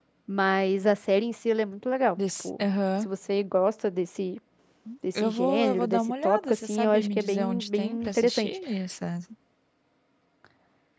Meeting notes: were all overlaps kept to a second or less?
No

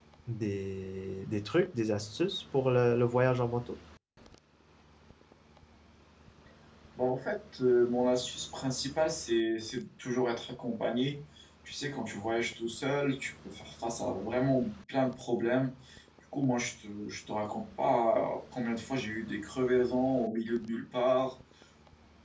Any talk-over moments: No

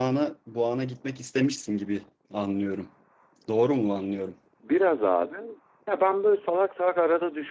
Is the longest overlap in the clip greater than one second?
No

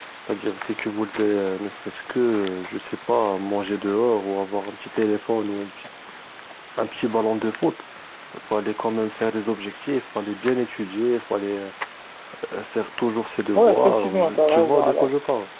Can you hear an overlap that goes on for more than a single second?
Yes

